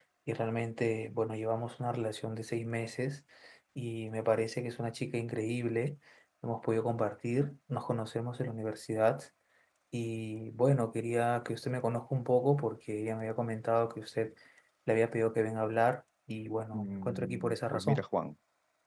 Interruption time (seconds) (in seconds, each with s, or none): 16.7 s